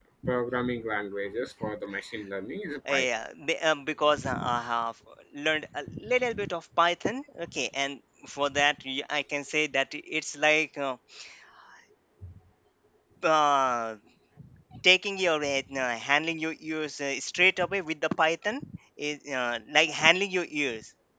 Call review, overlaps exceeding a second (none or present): none